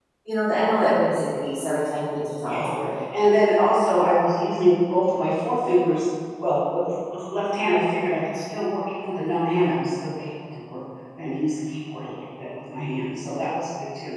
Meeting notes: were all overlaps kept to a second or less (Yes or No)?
Yes